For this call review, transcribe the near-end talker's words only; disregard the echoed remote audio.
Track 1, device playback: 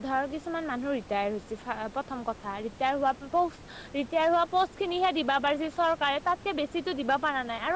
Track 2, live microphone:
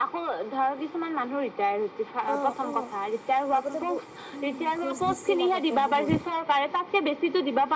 অ। অ' আগতে ব উম, ঘোচ দিছিল আগতে বহুত

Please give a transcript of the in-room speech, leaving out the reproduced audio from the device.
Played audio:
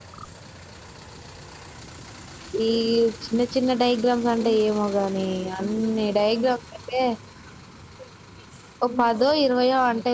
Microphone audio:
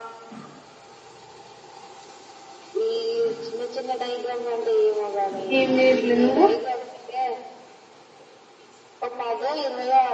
ఏం చేయట్లే నువ్వు

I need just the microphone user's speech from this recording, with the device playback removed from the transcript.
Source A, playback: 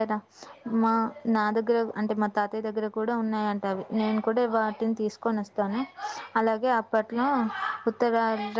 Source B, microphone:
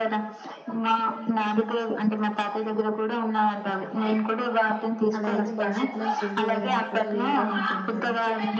అలా అయితే భవిష్యత్తులో తిరిగి ఇవ్వడానికి కూడా వీలుగా ఉంటుంది కదా

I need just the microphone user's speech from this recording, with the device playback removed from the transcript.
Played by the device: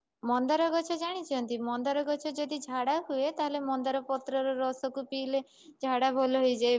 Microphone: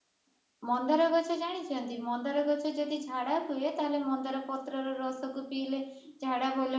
none

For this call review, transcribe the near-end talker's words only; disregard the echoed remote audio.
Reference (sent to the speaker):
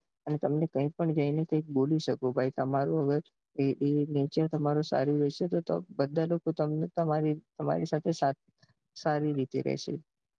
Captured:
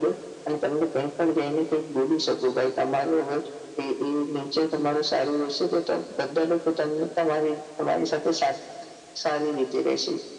none

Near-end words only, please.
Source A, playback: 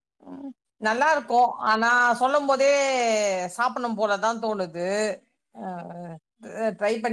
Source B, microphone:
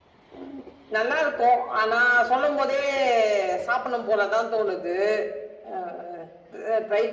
none

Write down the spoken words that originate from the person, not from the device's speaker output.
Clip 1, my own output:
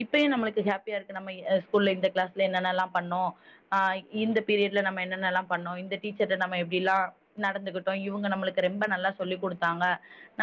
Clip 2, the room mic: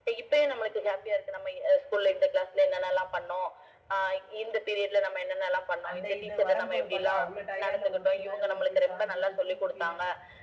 அந்த இது வரம்போது பாத்தா அவ்ள டயட்ல ஒருத்தி மேல ஒருத்தி சாஞ்சிட்டு தூங்கிக்னு

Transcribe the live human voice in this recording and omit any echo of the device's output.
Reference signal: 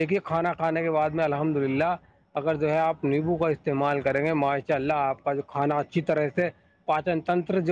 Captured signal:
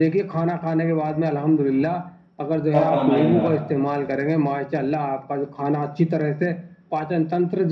اللہ فرمائے گا

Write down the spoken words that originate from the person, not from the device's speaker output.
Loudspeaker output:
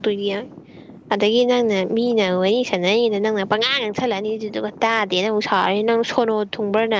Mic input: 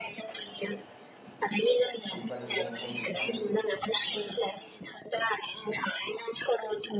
ꯂꯨꯄꯥ ꯂꯤꯁꯤꯡ ꯌꯥꯡꯈꯩꯒ ꯆꯪꯉꯛꯏ

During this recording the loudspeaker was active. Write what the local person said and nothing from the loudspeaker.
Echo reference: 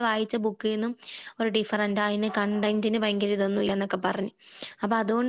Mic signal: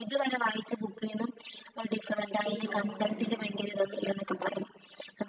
പി മോഹനനോ

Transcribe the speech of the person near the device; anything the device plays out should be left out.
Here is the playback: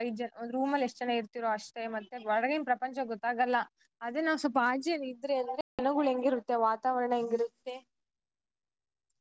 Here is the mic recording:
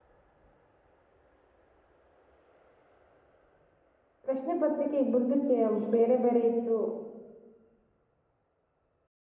ಪ್ರಶ್ನೆ ಪತ್ರಿಕೆ ಇಬರ್ದು ಚೆ ಬೇರೆ ಬೇರೆ ಇತ್ತು

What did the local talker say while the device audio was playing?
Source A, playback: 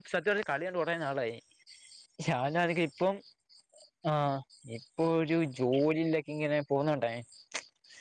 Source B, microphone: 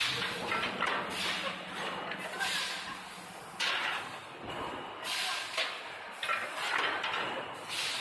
none

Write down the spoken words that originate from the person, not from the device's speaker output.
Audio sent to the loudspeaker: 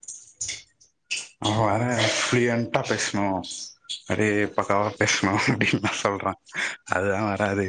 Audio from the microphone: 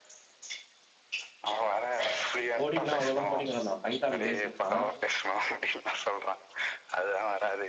கோடிங்னா அவ்ளோலா கோடிங் வராதா பைத்தான் பேசிக்ஸ்ஸா

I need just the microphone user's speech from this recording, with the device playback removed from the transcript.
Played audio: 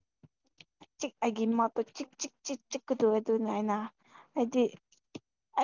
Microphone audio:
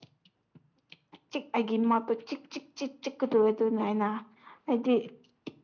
none

